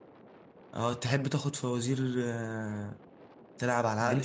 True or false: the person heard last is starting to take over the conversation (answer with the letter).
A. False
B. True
B